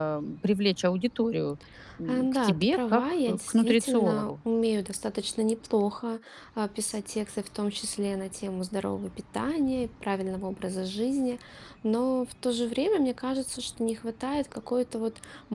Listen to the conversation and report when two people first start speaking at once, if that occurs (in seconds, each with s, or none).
2.1 s